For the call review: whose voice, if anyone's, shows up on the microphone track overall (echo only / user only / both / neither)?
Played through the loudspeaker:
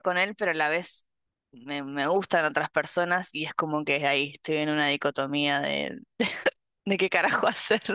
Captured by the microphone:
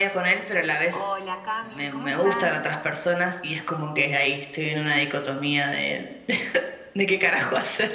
both